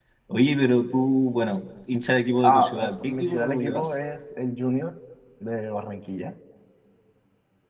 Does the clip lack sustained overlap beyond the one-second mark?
No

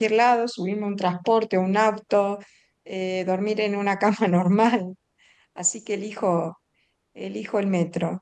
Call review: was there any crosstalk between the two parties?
No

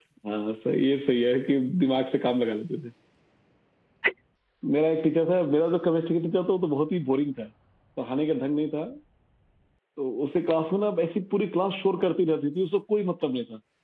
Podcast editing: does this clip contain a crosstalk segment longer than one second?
No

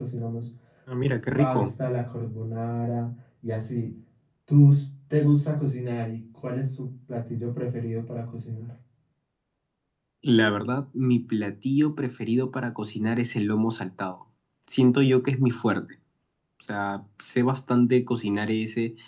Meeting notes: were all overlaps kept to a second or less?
Yes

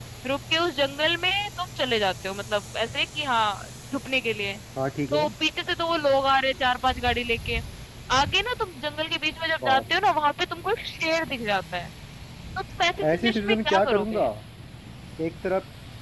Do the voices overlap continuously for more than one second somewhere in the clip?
Yes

